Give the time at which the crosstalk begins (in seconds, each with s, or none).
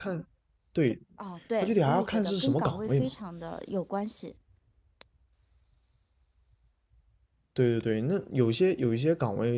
1.6 s